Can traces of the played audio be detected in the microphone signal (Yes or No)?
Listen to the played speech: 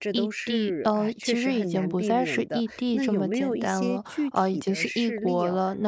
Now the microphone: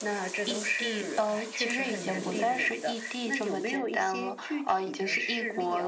Yes